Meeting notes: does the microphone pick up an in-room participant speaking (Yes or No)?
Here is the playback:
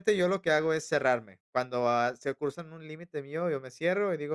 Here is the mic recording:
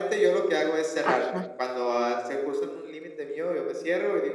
Yes